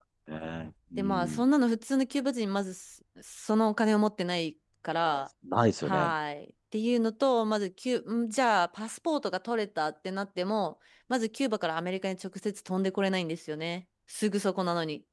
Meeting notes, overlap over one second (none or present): none